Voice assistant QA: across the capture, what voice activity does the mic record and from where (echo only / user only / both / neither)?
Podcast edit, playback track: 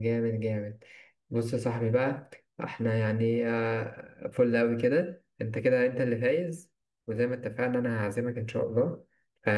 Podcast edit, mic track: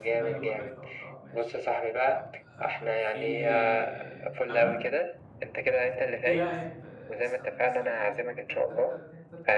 both